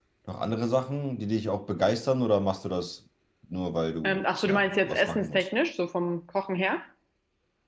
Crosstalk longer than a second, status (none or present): present